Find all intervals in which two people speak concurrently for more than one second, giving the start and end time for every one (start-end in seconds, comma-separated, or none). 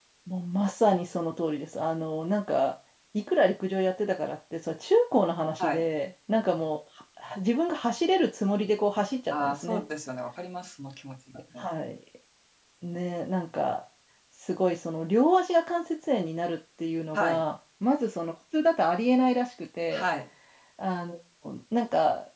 none